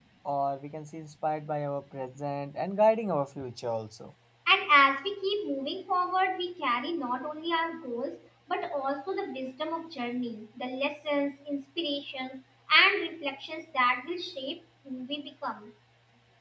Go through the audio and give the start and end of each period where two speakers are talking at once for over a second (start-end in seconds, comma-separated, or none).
none